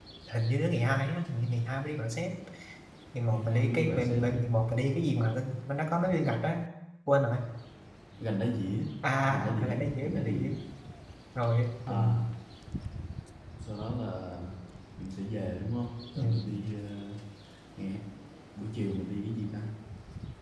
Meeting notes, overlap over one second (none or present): present